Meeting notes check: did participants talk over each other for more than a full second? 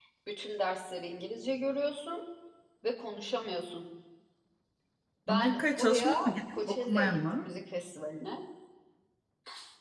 Yes, from 5.3 s

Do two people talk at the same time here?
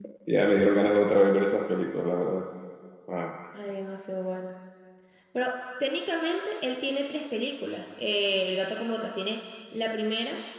No

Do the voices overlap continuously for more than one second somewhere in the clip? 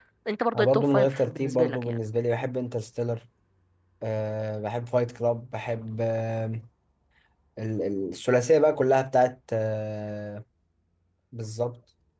Yes, from 0.6 s

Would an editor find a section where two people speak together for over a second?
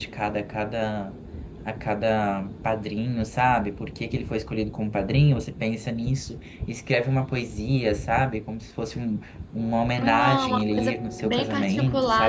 Yes, from 10.0 s

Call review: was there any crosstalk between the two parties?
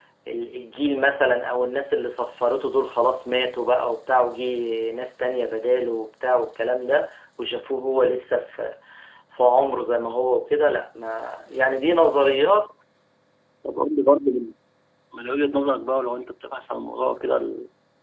No

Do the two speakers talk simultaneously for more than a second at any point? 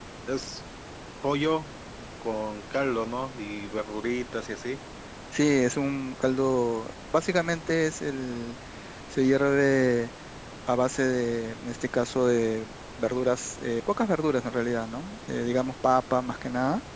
No

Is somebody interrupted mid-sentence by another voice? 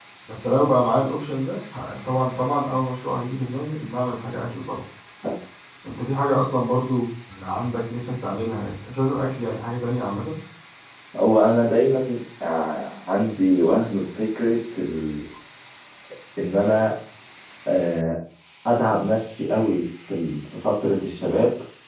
No

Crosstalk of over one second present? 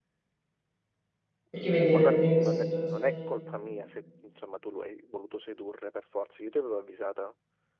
Yes, from 1.8 s

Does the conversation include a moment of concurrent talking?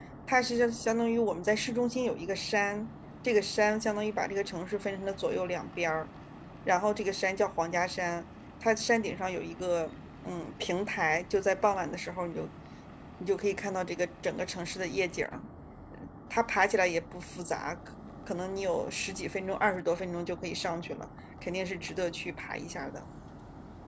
No

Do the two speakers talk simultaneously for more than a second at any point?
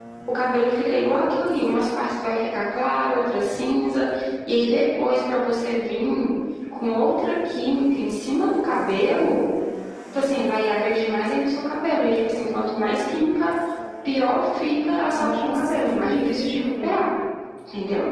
Yes, from 15.1 s

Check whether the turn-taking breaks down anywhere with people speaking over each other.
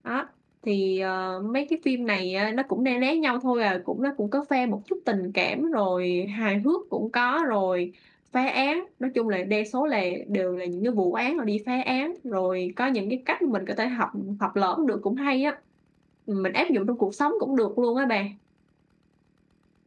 No

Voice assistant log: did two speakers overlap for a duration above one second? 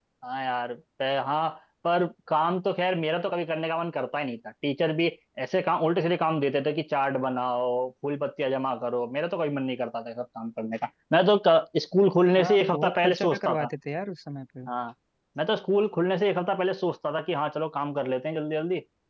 Yes, from 12.3 s

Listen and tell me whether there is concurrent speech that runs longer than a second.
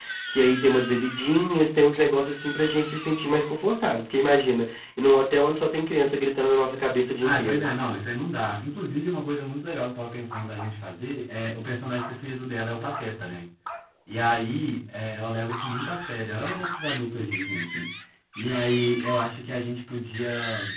No

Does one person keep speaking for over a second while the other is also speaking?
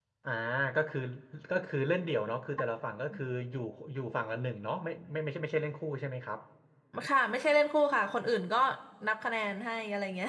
No

